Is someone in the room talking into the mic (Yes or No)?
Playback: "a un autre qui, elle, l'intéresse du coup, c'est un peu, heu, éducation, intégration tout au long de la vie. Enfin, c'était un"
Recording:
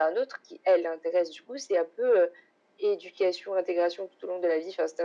No